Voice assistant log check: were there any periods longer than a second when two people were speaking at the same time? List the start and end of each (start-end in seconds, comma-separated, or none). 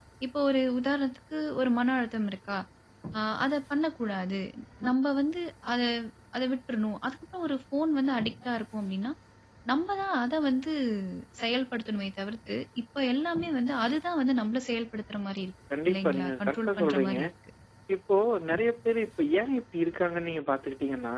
15.9-17.2